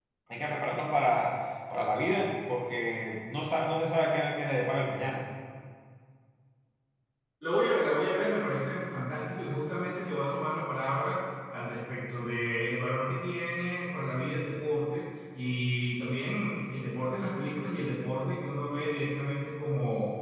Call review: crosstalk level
none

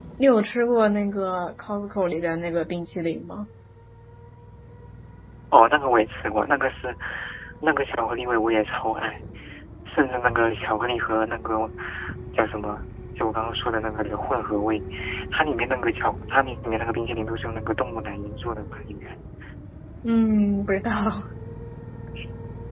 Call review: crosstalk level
none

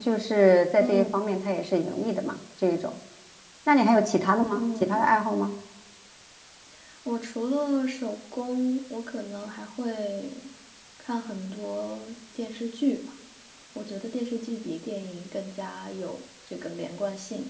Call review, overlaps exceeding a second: none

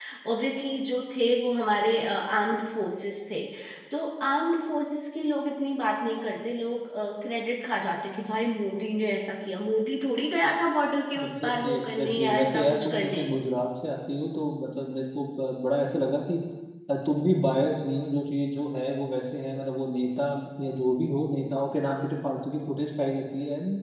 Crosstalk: present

